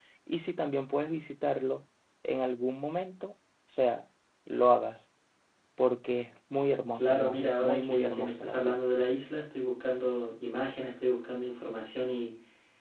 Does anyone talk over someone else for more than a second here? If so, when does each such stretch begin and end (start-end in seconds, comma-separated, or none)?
7.0-8.8